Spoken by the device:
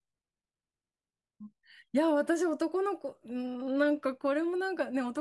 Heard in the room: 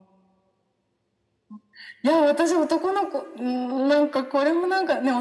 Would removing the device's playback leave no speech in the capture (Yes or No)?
Yes